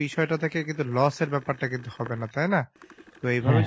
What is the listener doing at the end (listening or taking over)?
listening